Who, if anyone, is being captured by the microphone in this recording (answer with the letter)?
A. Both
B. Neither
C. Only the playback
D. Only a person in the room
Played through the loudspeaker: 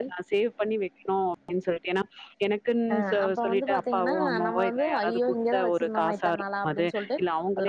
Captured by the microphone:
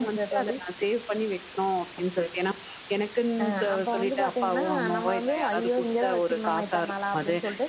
C